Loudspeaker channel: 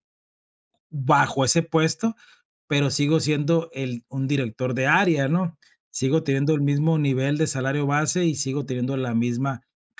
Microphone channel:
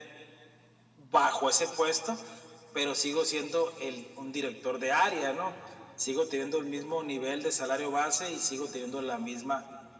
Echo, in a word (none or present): present